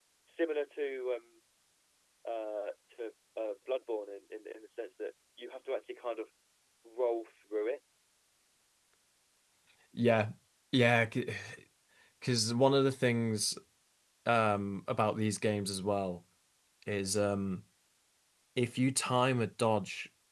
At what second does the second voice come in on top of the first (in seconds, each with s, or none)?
none